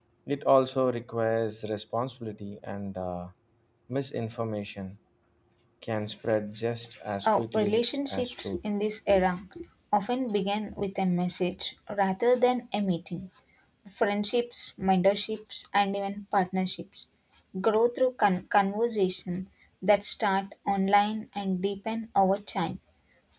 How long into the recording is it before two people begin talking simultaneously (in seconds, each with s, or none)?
7.2 s